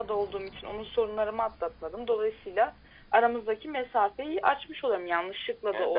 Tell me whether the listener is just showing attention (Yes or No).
No